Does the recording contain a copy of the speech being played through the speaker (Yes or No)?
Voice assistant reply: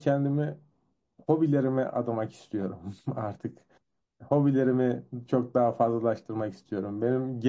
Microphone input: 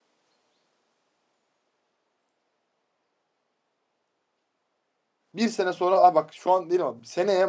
No